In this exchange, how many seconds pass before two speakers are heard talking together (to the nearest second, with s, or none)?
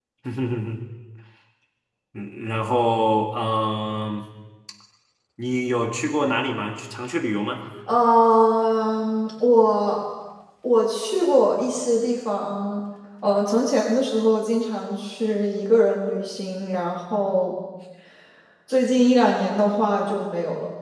none